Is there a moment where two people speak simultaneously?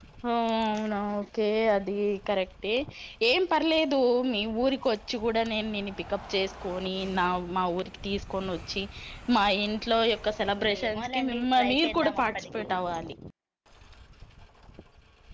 Yes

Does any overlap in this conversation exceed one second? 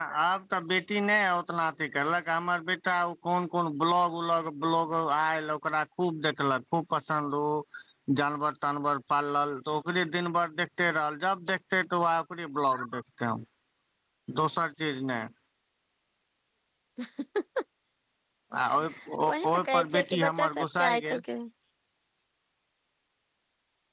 Yes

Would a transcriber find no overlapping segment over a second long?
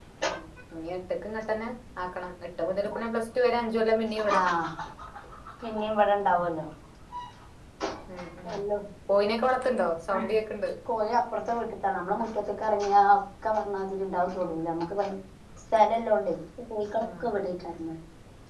Yes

